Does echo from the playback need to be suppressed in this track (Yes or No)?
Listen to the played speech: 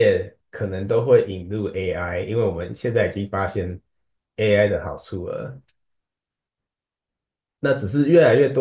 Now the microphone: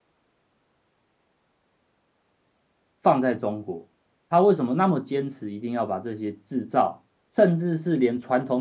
No